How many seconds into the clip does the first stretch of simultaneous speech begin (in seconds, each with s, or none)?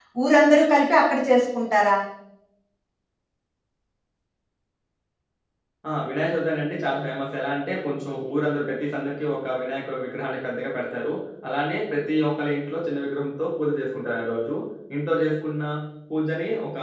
none